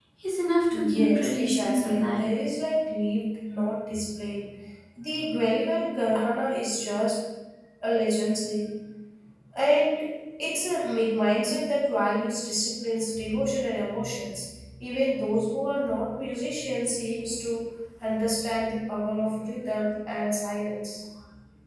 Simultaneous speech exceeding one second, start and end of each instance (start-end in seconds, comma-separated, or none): 0.7-2.3